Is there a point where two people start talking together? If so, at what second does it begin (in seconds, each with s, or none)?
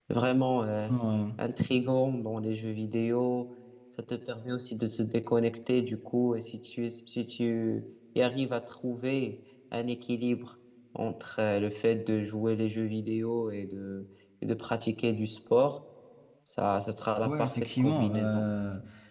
17.2 s